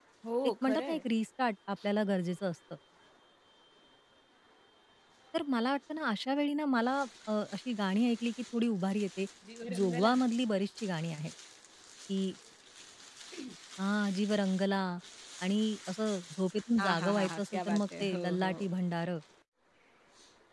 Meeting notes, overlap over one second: present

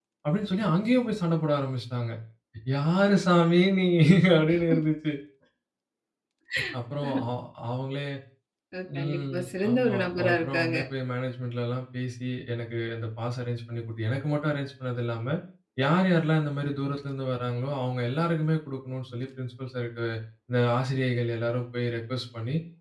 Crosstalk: present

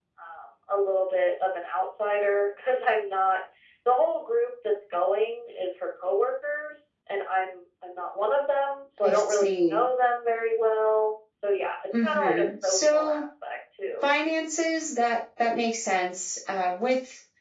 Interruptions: present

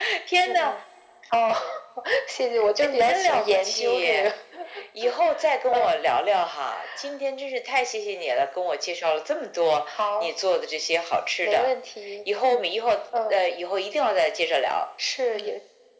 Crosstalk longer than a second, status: present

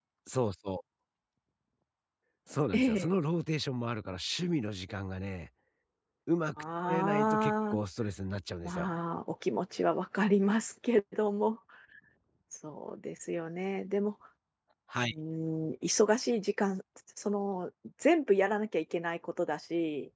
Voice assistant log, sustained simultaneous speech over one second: present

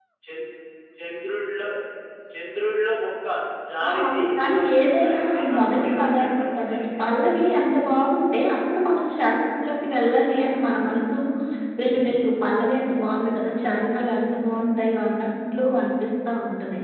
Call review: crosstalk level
present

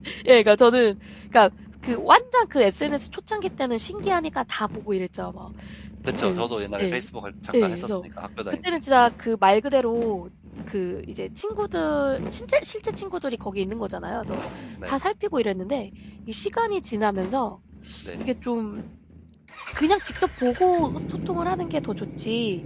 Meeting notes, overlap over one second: none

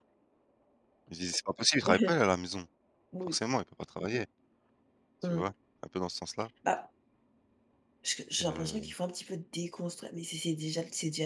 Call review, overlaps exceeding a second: none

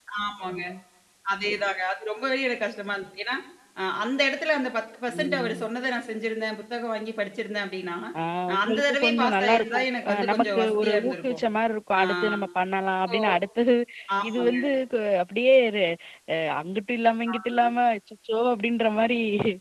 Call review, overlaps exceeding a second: present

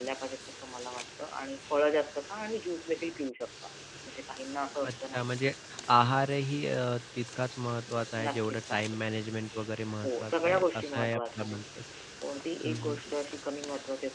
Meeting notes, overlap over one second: present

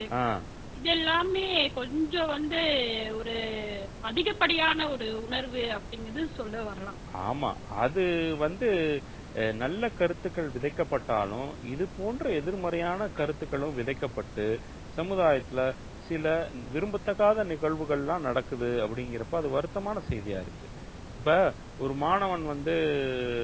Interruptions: none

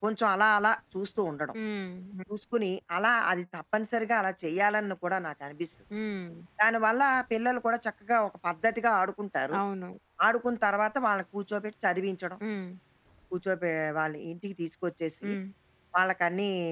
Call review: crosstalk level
none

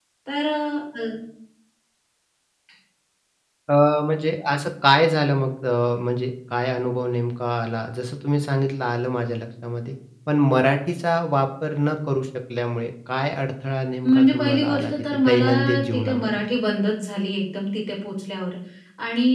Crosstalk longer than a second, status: present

